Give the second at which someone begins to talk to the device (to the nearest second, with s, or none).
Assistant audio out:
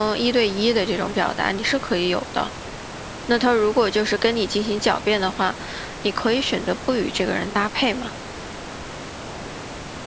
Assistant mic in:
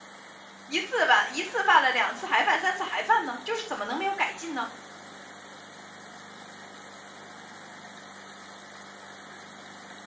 1 s